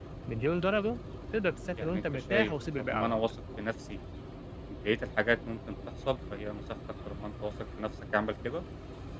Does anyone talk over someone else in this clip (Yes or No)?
Yes